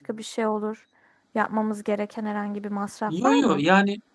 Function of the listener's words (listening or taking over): taking over